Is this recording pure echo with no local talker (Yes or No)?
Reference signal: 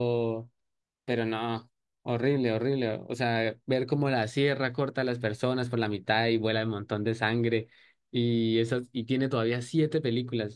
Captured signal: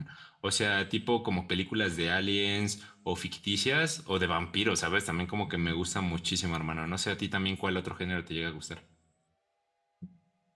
No